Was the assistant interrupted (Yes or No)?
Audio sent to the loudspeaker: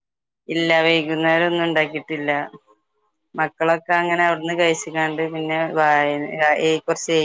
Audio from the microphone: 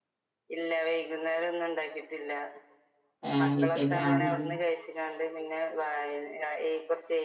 Yes